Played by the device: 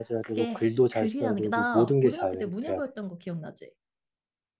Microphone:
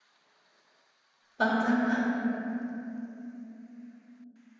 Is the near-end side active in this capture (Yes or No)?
Yes